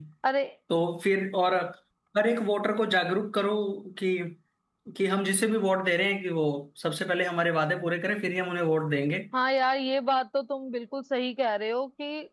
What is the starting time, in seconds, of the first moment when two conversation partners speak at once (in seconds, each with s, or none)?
none